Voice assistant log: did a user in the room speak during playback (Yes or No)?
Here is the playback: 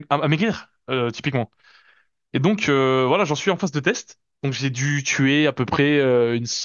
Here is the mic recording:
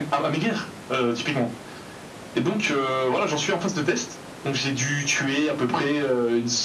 No